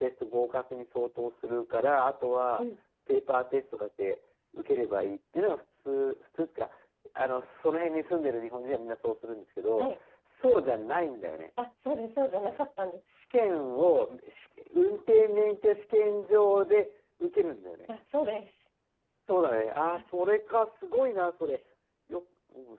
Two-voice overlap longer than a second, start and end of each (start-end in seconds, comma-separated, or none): none